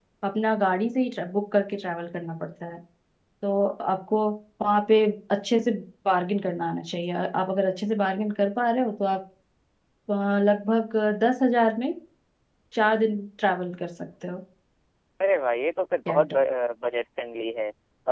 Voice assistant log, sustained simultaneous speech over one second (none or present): none